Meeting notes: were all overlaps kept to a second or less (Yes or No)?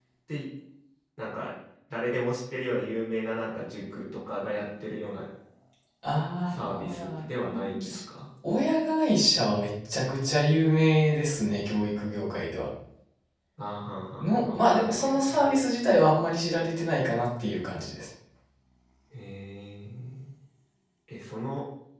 No